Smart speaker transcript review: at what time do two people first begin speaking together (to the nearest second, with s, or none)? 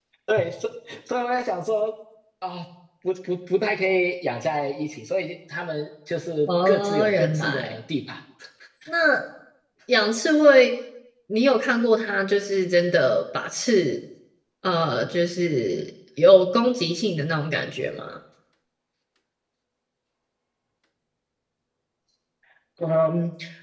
6 s